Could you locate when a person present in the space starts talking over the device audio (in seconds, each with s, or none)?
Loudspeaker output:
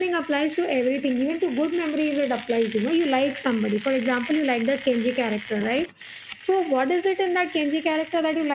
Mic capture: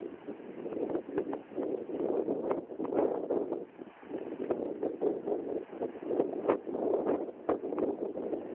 none